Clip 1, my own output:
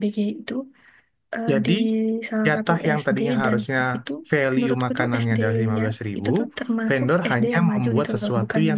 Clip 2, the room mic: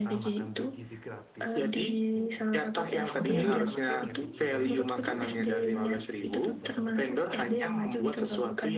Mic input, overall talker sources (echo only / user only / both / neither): both